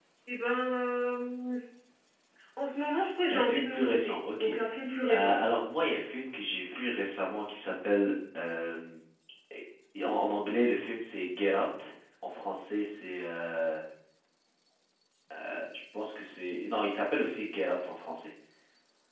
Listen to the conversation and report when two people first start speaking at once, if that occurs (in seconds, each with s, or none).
3.3 s